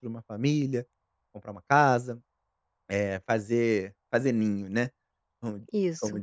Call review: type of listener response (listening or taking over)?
listening